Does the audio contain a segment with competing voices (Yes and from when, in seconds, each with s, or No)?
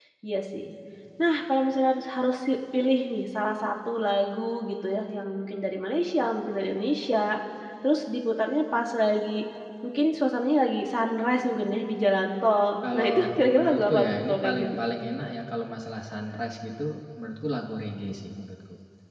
Yes, from 12.8 s